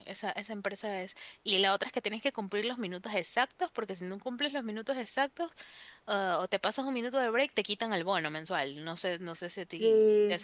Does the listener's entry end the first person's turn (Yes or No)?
Yes